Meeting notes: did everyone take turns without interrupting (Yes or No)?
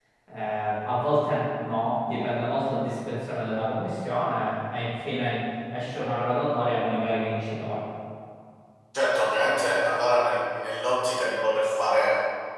Yes